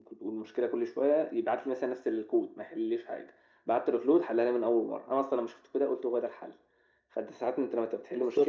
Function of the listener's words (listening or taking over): listening